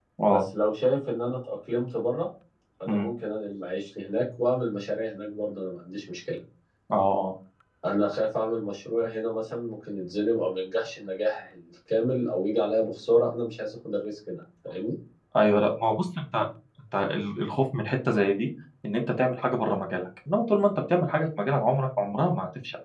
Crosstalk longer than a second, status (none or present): none